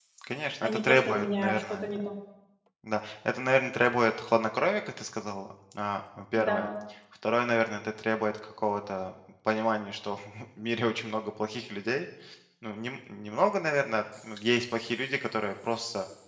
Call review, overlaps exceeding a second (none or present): present